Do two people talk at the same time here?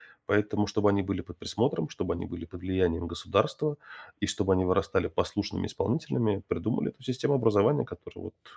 No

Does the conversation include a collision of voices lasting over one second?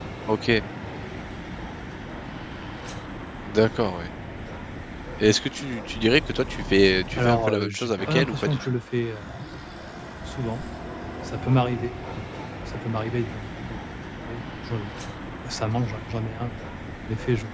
Yes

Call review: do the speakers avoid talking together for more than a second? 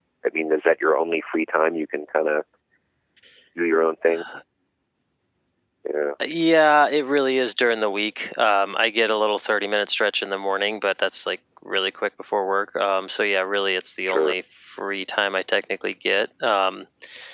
Yes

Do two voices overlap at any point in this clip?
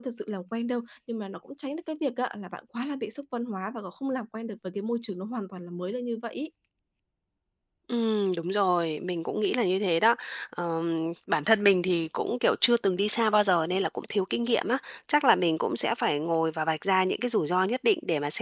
No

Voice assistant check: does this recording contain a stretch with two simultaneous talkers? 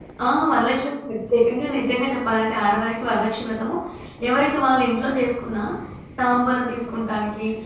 No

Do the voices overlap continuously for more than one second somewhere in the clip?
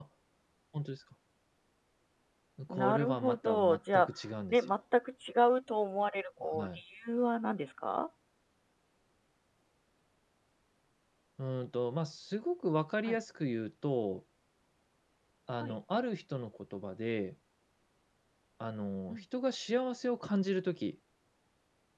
Yes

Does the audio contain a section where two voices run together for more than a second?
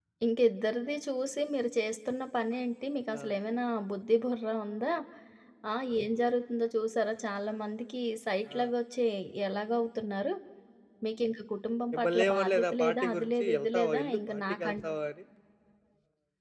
Yes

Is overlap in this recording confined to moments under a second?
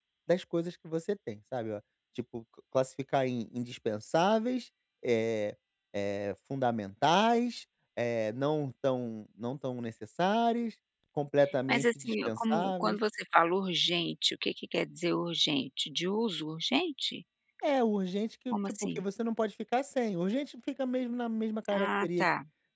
No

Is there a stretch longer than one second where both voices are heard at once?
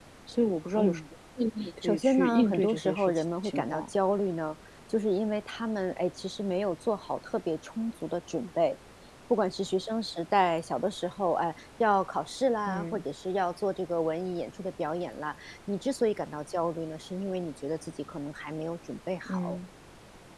Yes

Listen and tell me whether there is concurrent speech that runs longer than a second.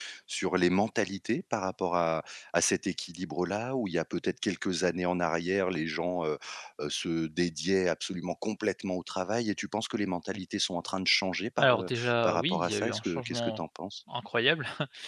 Yes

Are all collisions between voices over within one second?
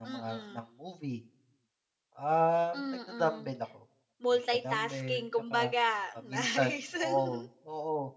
No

